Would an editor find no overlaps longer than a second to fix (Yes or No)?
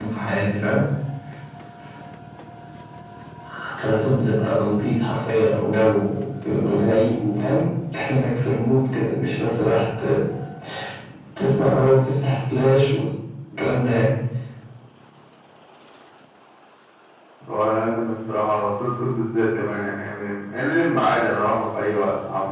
Yes